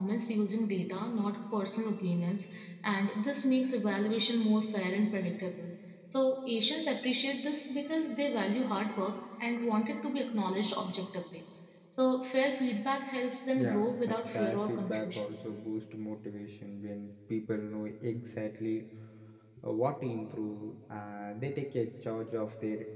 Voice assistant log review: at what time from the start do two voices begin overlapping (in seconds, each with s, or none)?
13.6 s